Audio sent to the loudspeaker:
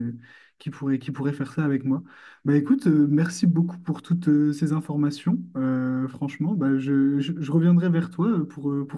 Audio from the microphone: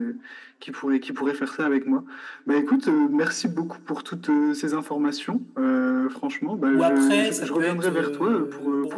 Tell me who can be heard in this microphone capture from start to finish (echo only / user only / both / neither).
both